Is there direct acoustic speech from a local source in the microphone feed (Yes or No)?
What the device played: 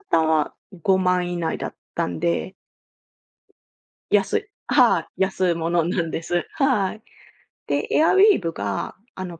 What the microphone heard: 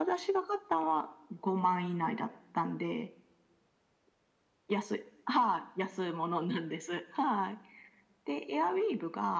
No